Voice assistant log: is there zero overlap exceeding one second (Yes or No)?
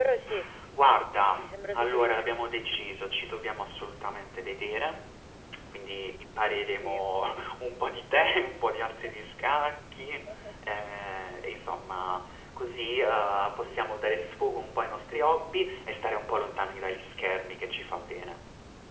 No